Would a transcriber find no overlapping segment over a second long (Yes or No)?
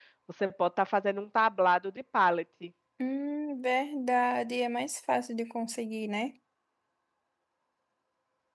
Yes